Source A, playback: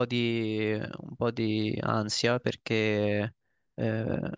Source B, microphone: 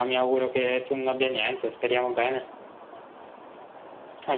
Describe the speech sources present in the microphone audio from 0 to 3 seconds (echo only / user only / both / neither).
user only